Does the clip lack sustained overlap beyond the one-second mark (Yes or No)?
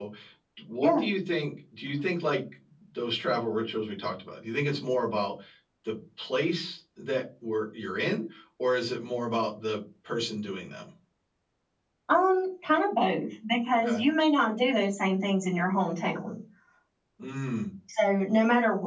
Yes